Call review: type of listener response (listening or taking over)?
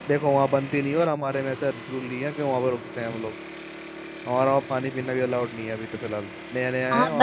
taking over